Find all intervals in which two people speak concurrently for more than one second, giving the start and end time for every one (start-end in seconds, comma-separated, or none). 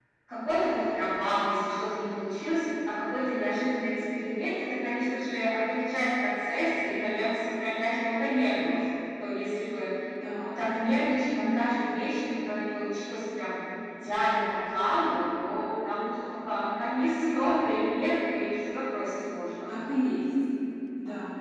none